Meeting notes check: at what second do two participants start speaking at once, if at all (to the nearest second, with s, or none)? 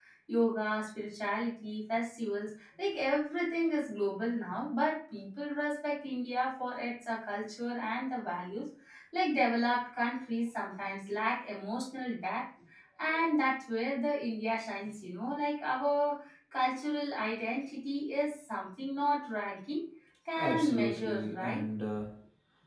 20 s